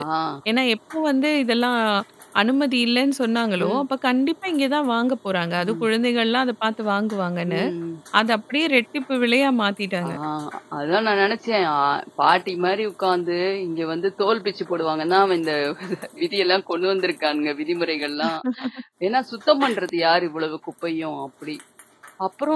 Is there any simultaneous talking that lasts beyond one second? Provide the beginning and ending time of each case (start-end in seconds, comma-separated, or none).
none